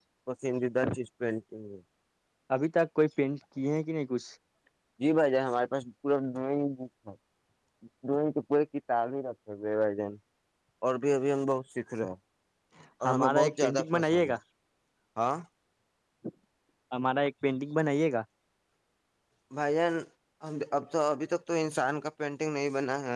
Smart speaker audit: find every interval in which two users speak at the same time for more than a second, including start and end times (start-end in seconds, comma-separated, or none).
13.1-14.3